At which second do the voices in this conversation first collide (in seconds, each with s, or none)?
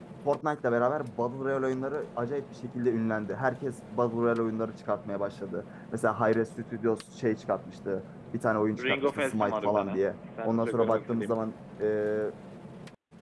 8.8 s